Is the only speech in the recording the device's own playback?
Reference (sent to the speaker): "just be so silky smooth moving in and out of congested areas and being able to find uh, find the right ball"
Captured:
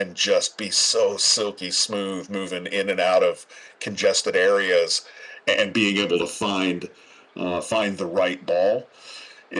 Yes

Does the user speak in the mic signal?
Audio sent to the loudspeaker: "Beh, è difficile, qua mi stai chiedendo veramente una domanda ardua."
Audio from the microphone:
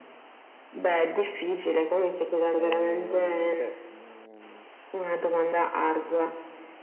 Yes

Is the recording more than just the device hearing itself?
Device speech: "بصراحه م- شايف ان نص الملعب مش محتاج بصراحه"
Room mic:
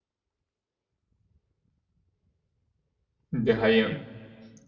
Yes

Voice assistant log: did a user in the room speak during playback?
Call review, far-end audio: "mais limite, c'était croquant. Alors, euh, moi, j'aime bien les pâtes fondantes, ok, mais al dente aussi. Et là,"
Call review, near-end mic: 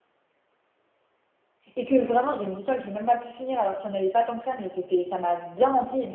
Yes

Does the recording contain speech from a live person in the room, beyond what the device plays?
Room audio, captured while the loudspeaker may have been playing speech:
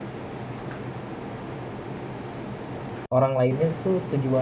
Yes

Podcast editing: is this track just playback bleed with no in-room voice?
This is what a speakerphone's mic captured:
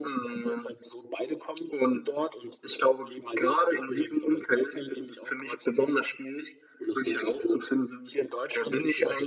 Yes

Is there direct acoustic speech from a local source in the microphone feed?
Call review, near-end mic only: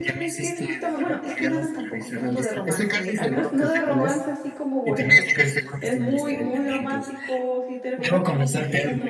Yes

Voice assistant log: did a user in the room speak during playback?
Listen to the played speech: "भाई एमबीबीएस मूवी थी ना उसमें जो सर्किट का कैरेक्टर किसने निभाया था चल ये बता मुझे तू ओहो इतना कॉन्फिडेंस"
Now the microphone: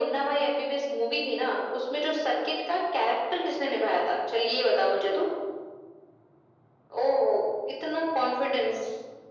No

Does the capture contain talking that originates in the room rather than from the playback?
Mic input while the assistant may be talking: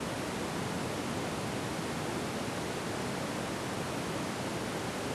No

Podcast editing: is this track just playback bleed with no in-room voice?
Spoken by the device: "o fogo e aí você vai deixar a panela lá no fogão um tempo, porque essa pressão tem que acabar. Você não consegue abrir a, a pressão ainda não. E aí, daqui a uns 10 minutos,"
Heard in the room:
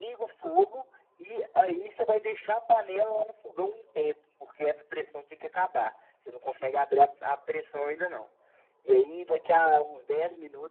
Yes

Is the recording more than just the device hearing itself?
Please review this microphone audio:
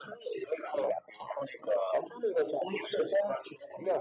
No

